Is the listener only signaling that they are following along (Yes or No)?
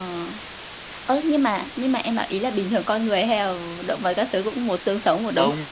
No